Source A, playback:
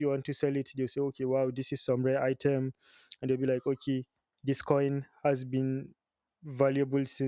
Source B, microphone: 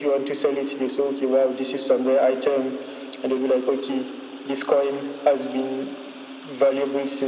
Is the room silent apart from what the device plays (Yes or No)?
Yes